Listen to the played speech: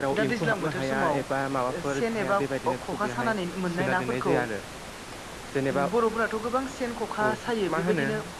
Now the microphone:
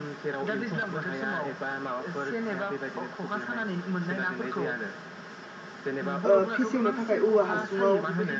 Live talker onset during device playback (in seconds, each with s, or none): 6.3 s